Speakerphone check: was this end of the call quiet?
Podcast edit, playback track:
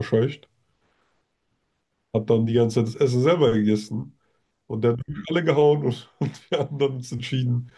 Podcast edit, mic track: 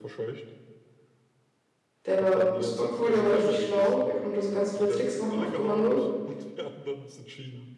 No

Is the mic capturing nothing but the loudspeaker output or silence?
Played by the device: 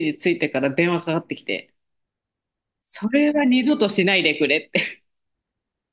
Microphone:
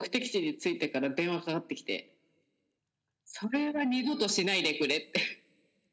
Yes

